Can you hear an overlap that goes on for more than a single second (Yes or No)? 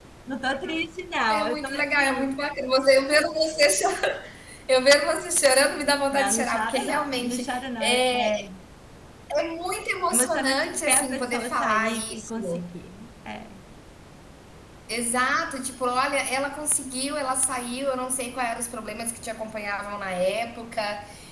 Yes